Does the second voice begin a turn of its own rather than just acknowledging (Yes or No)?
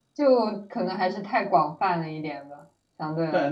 Yes